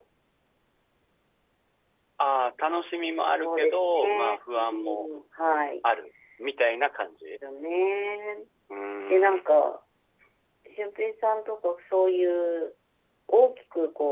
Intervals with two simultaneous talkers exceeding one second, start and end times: 3.3-5.1

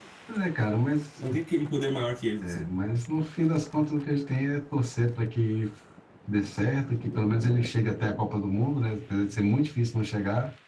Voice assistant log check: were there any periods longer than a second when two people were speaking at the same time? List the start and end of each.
none

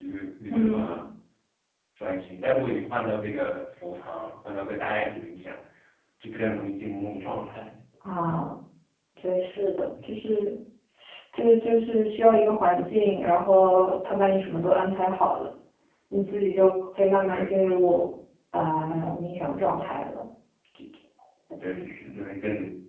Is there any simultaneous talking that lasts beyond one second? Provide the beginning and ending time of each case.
none

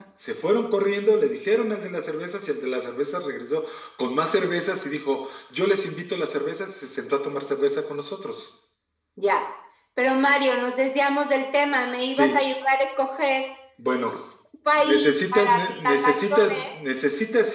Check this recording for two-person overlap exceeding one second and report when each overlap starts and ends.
14.8-16.7

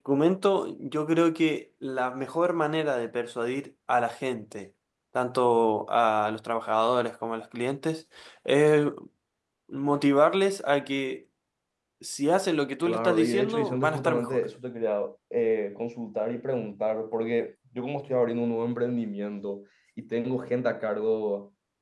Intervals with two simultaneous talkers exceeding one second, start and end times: 12.8-14.4

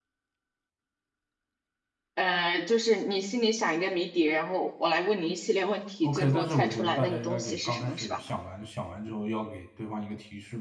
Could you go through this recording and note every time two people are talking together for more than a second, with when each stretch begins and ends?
6.0-8.2

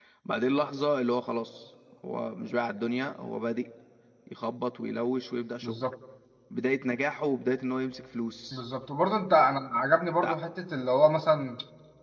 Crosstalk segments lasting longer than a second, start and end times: none

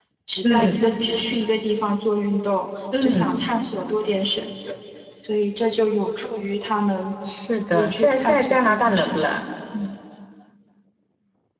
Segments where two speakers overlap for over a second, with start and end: 7.7-9.4

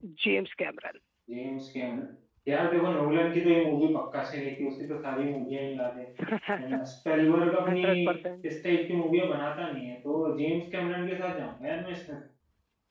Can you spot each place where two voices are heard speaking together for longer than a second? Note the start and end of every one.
none

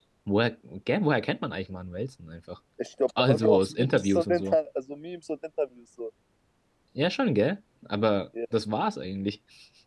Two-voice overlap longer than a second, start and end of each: 3.2-4.5

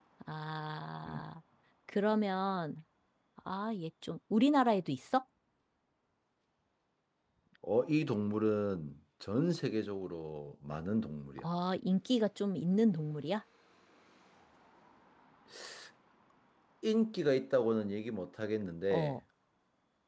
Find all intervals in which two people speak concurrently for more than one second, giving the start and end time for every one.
none

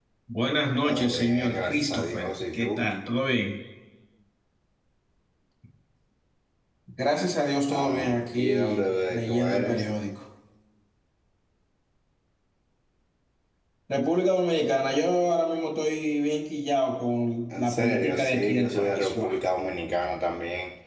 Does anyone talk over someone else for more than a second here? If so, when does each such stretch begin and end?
0.8-2.9, 7.7-9.8, 17.6-19.3

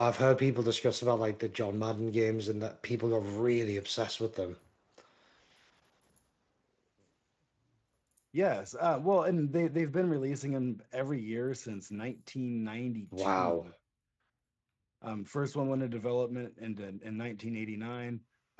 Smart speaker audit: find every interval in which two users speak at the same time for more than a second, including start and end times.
none

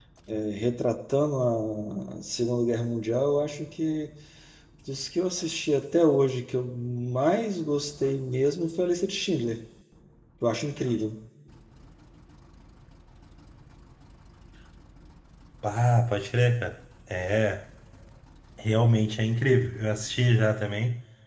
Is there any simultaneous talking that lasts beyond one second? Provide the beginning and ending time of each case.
none

